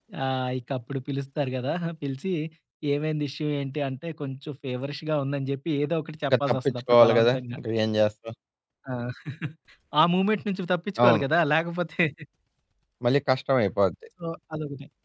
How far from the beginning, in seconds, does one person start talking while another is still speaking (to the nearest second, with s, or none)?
6 s